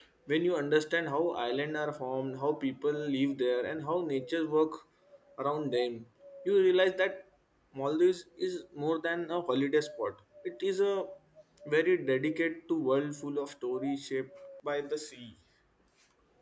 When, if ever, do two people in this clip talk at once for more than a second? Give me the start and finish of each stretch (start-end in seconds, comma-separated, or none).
none